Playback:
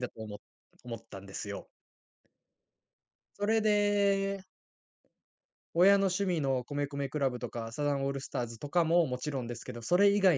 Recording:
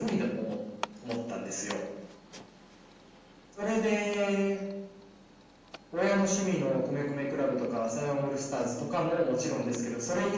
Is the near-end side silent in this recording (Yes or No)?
Yes